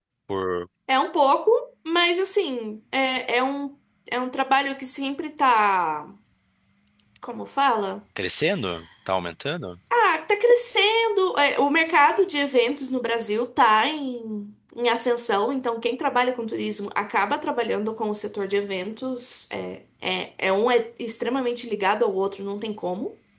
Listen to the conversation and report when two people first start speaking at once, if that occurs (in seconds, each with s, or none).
none